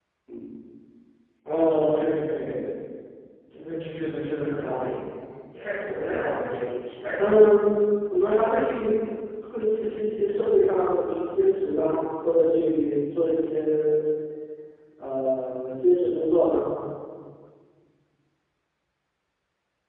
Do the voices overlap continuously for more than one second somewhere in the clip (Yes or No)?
No